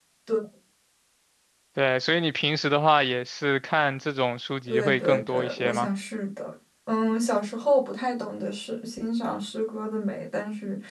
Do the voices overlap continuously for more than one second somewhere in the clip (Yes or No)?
Yes